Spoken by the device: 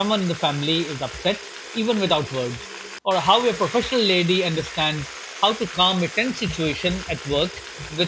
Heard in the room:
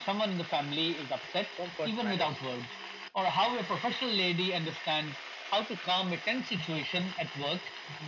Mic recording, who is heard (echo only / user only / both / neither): both